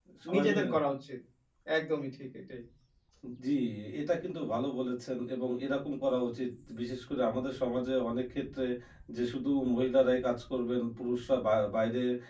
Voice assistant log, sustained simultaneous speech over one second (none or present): none